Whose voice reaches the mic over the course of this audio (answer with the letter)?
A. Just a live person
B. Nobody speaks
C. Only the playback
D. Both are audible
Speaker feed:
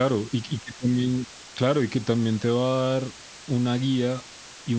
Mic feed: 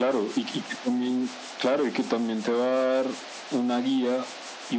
C